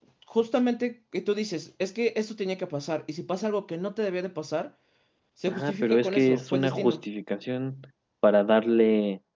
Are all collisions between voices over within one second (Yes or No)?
No